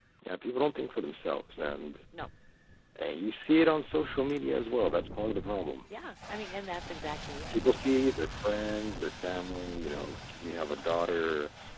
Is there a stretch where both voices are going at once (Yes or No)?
No